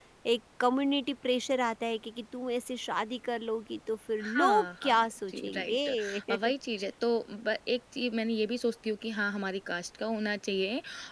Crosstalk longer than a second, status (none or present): present